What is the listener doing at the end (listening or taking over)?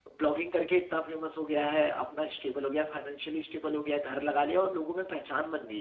taking over